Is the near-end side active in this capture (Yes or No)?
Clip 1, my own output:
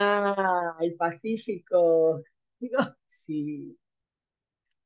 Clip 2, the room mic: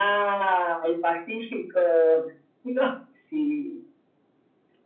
No